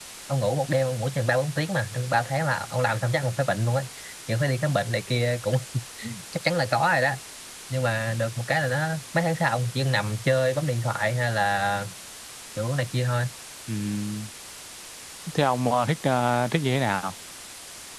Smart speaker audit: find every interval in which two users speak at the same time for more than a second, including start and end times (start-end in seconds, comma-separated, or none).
none